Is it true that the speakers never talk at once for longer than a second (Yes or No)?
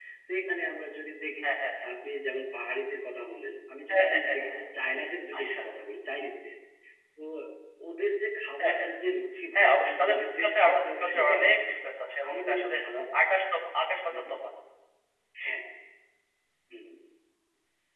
No